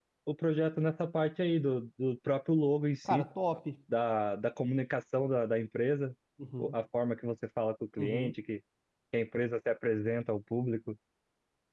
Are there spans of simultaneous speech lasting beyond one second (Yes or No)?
No